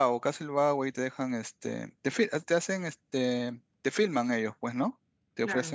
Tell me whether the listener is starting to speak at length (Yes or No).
No